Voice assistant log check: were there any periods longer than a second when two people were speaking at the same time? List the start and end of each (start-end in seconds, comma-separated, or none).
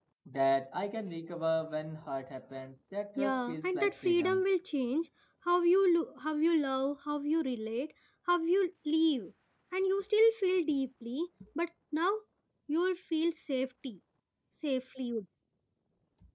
3.2-4.4